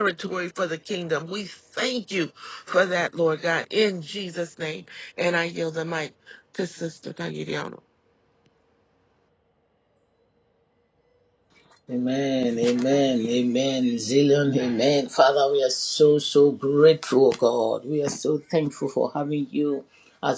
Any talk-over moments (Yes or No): No